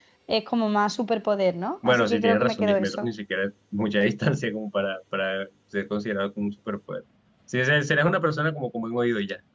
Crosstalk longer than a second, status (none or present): present